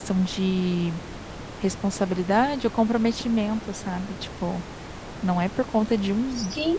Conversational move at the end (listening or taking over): listening